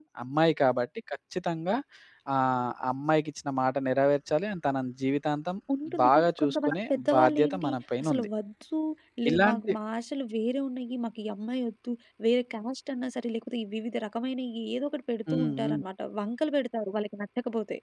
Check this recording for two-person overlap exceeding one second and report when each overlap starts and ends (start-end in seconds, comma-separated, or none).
6.0-8.3